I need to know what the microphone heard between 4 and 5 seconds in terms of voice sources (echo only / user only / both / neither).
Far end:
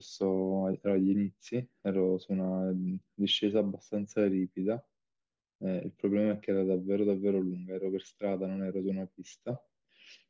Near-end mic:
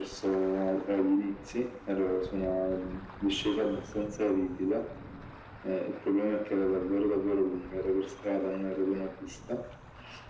echo only